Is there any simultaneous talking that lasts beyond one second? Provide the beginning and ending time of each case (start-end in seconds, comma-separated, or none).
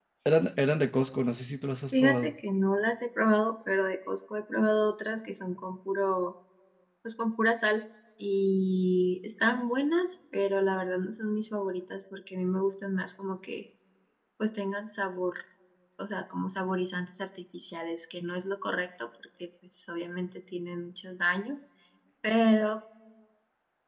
none